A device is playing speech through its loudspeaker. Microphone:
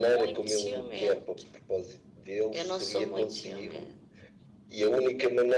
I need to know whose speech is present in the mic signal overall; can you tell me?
echo only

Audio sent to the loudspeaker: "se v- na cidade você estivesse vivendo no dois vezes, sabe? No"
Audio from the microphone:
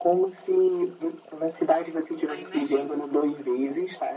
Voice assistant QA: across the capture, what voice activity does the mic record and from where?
both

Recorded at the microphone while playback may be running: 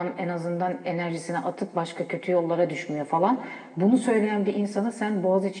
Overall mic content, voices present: echo only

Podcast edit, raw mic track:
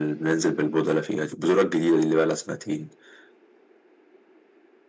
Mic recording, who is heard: echo only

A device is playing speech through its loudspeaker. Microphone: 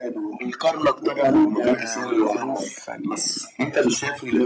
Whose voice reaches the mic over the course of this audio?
echo only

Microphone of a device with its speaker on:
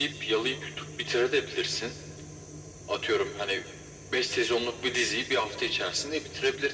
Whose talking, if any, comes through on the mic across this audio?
echo only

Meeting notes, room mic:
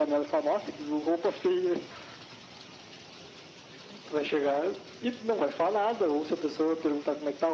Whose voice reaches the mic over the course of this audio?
echo only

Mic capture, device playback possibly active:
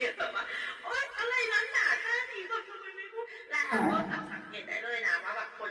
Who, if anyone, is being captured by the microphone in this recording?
both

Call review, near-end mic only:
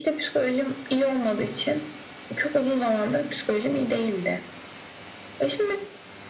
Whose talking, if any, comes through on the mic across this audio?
echo only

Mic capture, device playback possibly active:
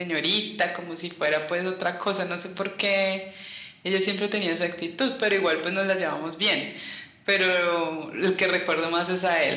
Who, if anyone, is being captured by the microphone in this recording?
user only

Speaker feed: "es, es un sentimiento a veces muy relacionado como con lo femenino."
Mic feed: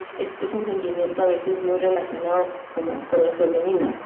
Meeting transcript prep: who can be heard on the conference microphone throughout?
echo only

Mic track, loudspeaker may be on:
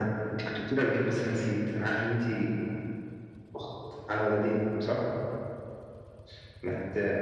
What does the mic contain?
echo only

